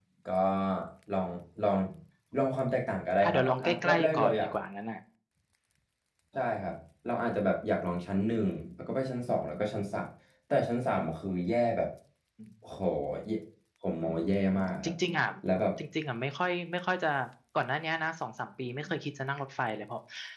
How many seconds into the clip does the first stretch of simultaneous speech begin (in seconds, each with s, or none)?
3.2 s